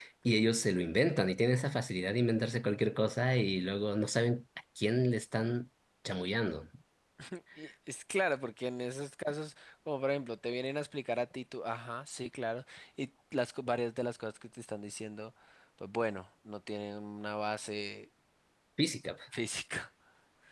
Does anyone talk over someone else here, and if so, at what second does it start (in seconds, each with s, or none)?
none